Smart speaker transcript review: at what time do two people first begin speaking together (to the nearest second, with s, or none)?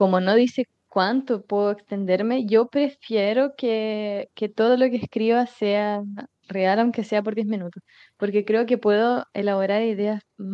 none